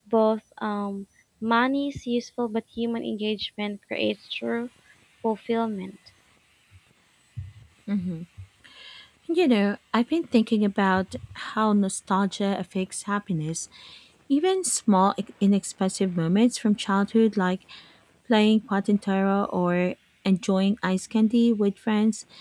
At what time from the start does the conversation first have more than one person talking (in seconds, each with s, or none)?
none